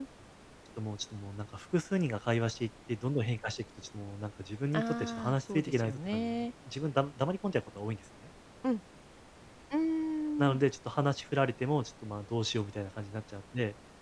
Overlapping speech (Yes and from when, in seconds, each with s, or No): Yes, from 4.7 s